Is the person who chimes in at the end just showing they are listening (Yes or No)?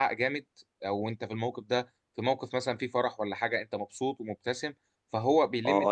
No